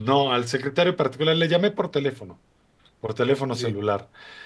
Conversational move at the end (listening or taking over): listening